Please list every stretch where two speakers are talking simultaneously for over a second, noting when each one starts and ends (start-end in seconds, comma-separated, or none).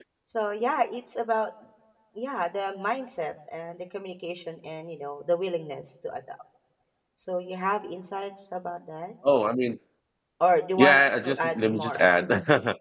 10.8-12.3